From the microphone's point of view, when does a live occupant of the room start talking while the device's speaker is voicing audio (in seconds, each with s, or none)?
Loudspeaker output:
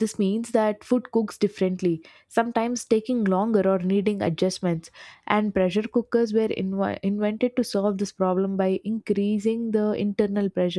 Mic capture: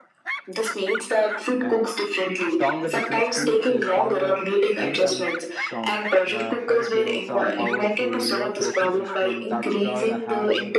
1.6 s